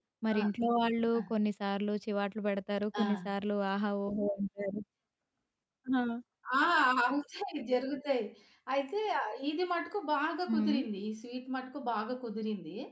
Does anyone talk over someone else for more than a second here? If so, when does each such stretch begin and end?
none

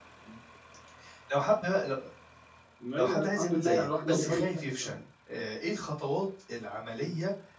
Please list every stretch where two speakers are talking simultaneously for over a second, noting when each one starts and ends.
3.0-5.0

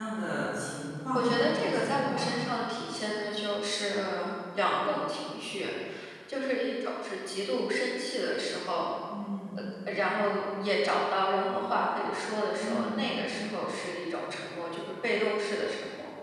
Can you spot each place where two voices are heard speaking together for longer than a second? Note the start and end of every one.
1.2-2.4

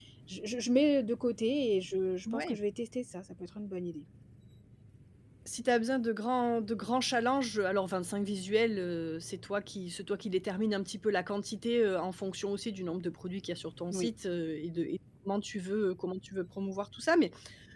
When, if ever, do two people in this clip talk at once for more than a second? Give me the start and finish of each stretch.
none

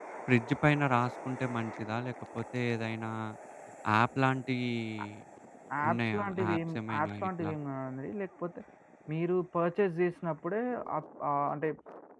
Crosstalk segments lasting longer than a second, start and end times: 5.9-7.5

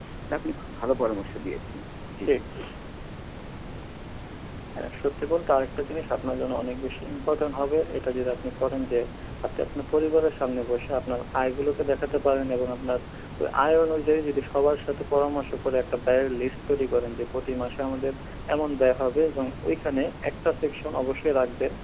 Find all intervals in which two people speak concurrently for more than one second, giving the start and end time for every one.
none

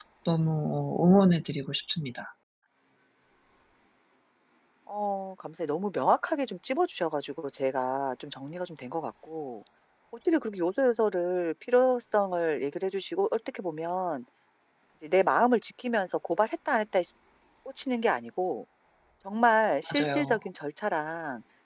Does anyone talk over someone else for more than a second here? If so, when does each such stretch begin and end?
none

